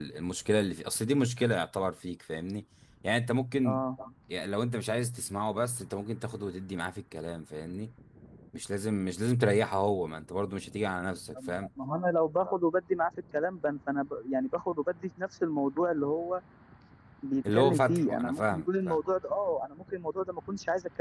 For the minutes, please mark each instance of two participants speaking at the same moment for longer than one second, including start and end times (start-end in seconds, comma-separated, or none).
17.5-19.0